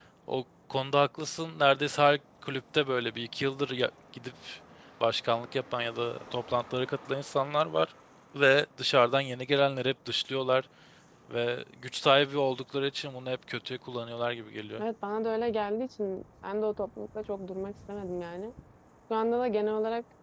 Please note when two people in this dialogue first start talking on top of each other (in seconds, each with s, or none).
none